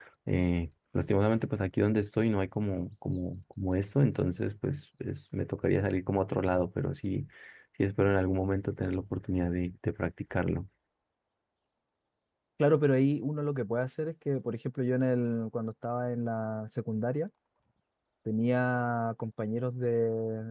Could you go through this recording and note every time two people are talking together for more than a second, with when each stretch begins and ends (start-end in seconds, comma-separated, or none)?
none